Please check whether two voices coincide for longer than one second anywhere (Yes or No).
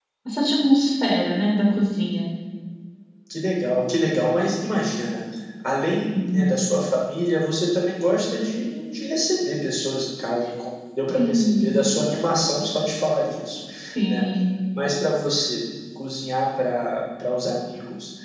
No